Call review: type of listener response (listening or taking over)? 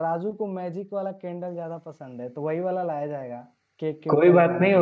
taking over